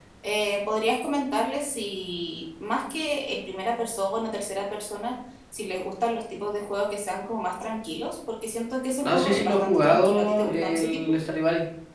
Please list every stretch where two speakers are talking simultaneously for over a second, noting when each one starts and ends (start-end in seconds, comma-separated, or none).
9.0-11.0